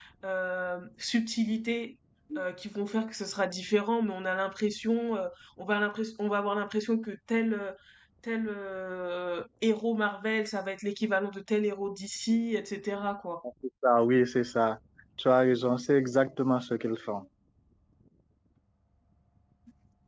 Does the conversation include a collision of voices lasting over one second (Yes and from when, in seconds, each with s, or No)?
No